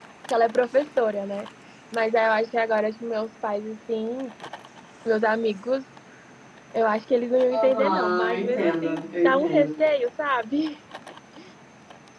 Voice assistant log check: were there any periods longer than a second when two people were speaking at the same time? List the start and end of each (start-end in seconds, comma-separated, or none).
7.5-9.7